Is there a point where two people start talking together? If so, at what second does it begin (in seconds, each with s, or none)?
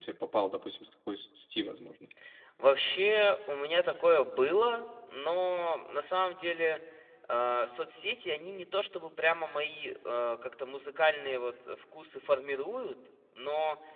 none